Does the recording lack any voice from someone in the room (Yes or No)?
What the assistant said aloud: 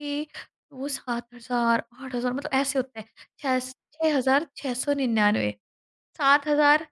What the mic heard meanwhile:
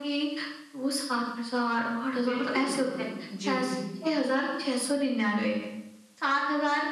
No